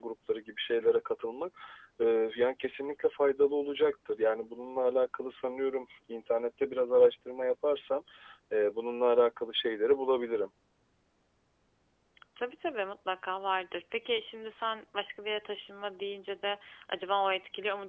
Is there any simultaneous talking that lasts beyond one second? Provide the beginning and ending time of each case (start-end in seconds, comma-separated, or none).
none